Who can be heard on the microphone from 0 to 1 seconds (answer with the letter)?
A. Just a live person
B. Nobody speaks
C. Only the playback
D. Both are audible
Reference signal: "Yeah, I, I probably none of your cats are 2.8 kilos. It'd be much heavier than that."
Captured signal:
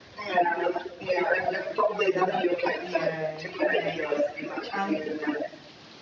C